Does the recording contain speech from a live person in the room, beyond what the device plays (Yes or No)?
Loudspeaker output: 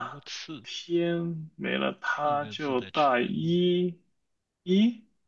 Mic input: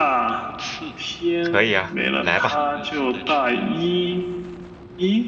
Yes